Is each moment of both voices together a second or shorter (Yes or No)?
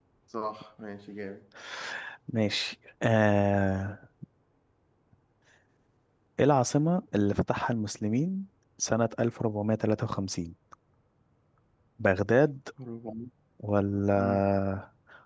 Yes